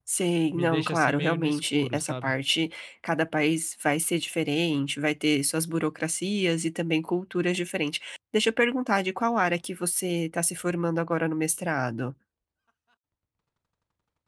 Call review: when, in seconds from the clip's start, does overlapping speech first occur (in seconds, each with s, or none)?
0.5 s